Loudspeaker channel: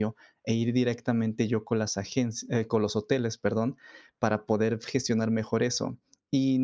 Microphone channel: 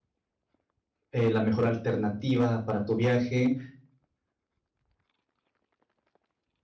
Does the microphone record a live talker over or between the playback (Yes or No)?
Yes